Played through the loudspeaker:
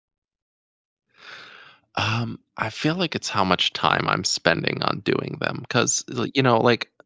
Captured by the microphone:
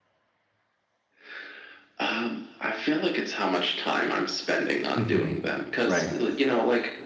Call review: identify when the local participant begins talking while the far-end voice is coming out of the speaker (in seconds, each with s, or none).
5.0 s